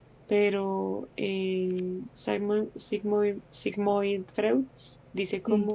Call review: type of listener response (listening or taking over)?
listening